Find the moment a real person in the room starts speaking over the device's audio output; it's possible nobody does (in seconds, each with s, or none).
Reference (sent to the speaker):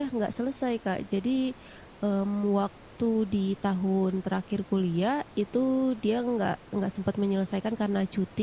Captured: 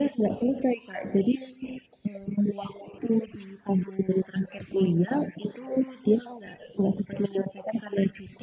none